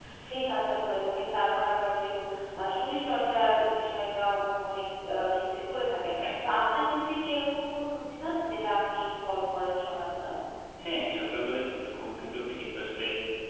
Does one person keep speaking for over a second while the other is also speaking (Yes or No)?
No